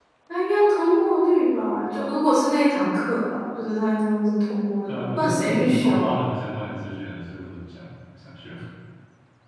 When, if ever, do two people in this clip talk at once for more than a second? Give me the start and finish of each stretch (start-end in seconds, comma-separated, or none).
4.9-6.2